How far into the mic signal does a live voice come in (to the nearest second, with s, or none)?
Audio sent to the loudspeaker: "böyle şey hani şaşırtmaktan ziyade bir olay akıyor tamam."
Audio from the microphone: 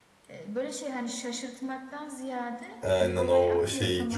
3 s